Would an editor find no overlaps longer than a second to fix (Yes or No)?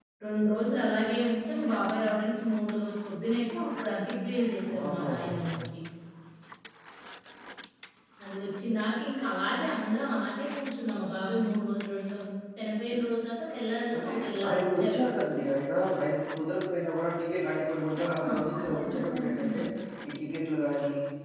No